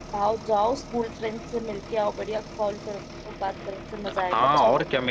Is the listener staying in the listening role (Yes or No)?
No